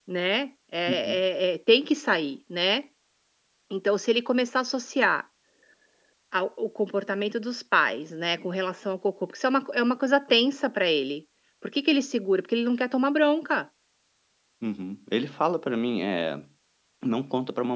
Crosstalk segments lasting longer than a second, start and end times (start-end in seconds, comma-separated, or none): none